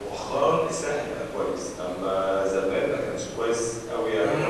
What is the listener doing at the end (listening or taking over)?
taking over